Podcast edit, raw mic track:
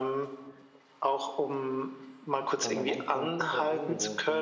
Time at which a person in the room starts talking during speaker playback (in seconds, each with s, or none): 2.4 s